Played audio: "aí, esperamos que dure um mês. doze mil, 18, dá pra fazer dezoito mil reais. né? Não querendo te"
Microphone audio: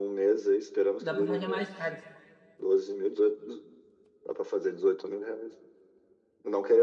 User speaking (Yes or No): Yes